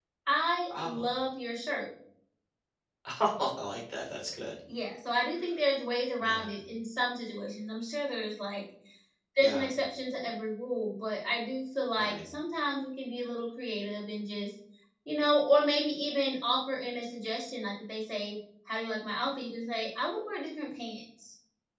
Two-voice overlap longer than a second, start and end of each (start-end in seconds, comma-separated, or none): none